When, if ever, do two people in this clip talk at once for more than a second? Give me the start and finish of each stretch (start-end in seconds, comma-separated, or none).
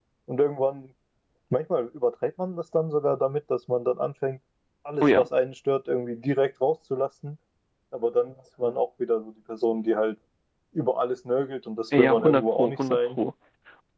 12.0-13.2